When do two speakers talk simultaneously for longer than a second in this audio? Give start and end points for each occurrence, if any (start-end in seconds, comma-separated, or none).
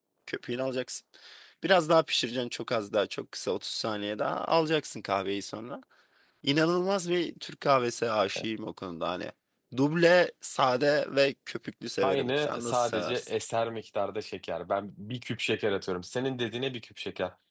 12.0-13.3